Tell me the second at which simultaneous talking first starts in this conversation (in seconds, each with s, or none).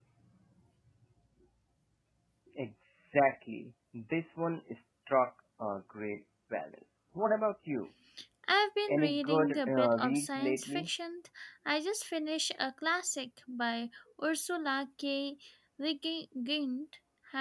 8.9 s